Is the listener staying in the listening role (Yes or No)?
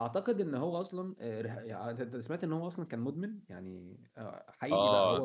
No